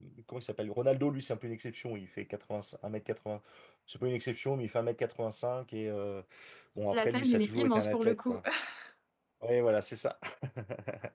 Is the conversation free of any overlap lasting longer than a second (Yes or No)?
No